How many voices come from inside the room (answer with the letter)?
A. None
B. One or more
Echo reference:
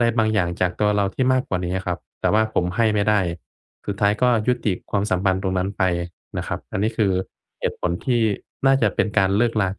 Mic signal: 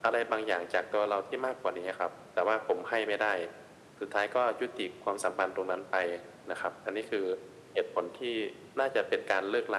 A